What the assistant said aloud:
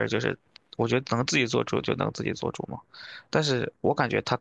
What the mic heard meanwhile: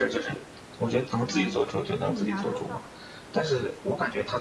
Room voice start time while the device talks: 1.2 s

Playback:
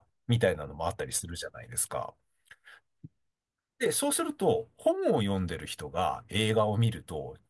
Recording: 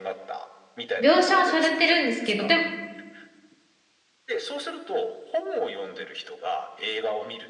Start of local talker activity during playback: 1.0 s

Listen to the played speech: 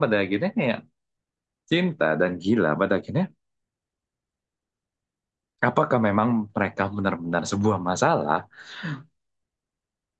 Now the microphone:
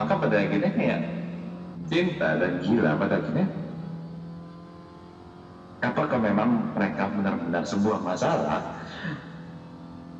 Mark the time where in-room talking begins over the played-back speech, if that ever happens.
none

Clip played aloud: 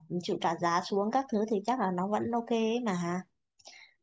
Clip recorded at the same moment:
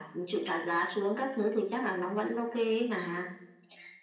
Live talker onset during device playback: none

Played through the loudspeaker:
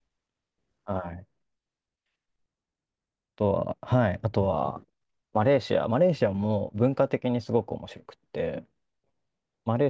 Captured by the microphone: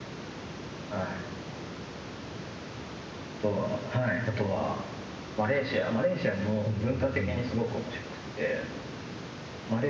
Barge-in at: 6.7 s

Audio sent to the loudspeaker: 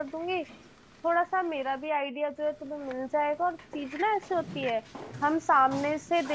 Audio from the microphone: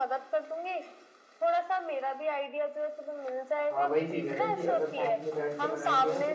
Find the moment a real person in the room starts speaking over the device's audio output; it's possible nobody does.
3.7 s

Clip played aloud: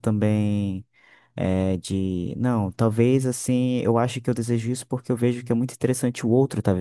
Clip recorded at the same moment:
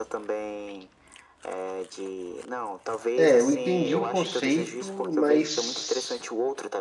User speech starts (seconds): 3.1 s

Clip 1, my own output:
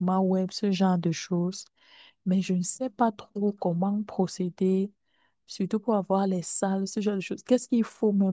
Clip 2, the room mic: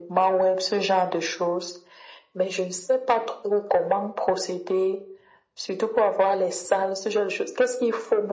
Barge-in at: none

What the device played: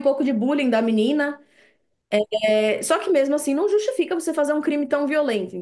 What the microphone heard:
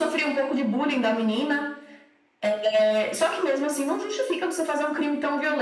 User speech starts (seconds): none

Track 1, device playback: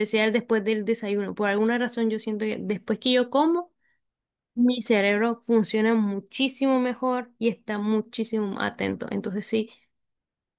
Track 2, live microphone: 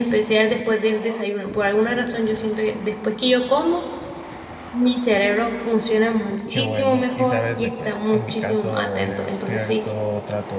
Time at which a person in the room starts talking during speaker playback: 6.5 s

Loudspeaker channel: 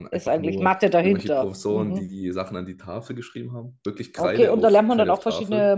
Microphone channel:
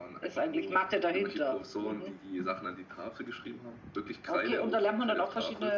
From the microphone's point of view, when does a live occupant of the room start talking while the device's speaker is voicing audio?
none

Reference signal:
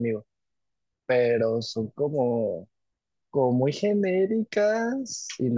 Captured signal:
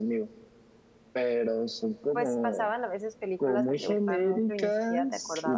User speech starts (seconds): 2.1 s

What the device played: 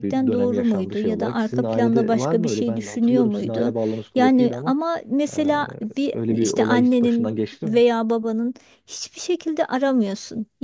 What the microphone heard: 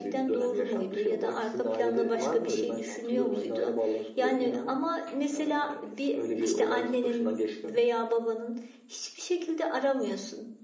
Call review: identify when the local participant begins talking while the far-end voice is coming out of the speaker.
none

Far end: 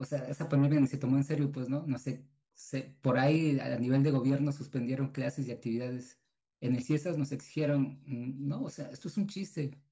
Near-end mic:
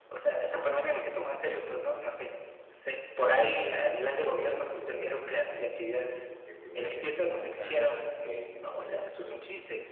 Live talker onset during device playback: 3.5 s

